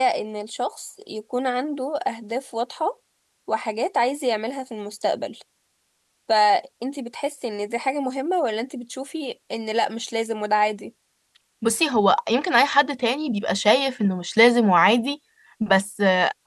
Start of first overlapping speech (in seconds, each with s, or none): none